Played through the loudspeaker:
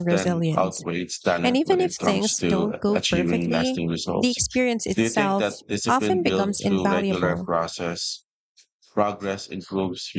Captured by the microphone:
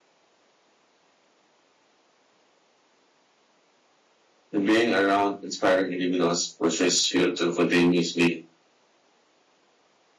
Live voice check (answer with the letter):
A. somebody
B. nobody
A